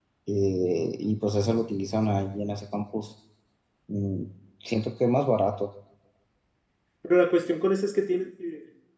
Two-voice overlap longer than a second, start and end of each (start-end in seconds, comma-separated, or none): none